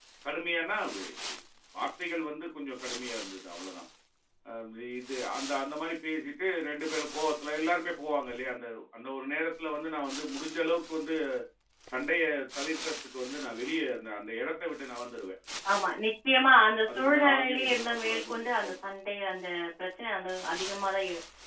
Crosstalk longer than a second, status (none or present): present